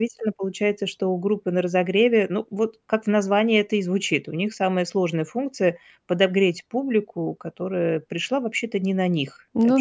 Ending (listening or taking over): listening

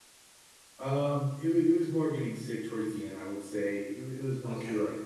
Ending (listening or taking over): listening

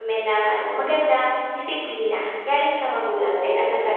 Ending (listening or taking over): taking over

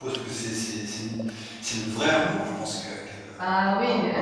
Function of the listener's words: taking over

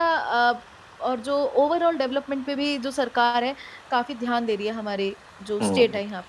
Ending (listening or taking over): taking over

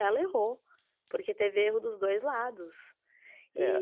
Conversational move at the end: taking over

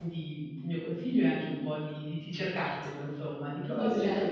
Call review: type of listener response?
listening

